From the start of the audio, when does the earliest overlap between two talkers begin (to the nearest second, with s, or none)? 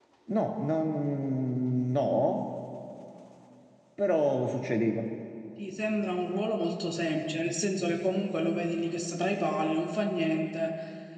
none